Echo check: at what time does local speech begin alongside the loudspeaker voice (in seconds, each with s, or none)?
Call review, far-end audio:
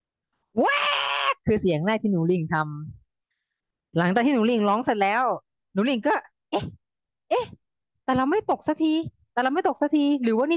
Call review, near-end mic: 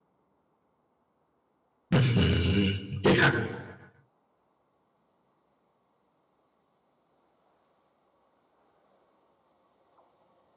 1.9 s